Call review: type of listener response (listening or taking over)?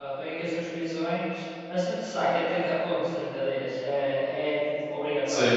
taking over